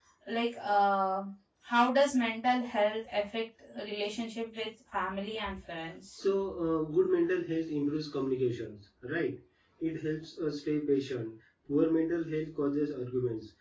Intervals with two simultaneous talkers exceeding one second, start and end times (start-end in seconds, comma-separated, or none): none